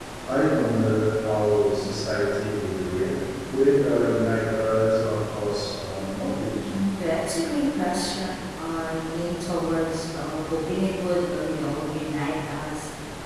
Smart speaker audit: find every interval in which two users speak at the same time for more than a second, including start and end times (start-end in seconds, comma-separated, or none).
none